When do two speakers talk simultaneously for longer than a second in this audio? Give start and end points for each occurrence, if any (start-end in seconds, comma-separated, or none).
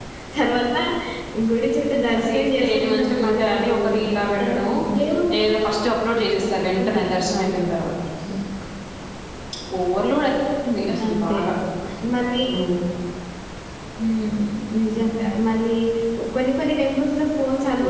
2.2-3.9